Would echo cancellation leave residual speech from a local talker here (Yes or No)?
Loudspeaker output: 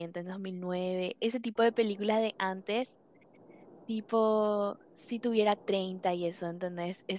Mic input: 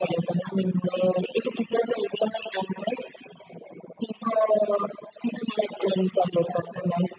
No